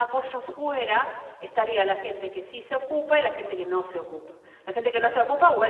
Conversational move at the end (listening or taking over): listening